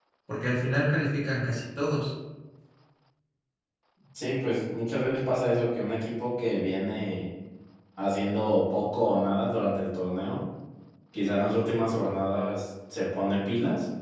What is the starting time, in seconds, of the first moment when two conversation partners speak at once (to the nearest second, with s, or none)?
none